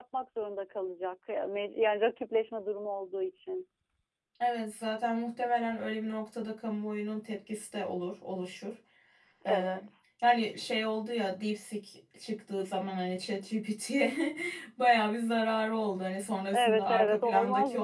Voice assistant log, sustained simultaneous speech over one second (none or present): present